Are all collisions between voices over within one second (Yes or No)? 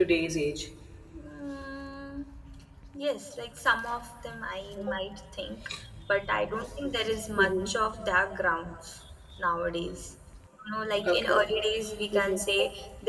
Yes